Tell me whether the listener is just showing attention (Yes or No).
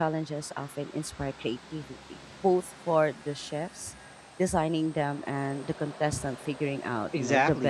No